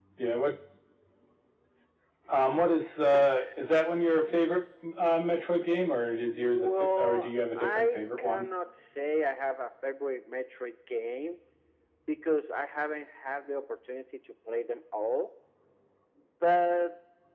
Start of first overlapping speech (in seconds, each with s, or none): 6.1 s